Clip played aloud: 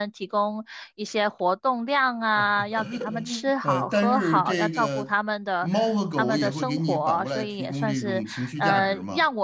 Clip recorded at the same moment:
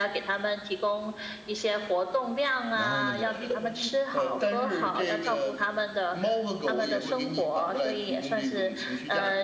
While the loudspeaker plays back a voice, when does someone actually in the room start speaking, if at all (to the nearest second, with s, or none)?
3 s